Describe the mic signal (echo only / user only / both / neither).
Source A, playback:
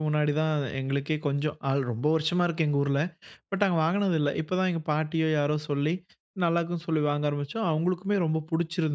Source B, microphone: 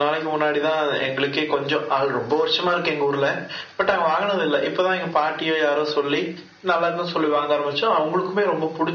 echo only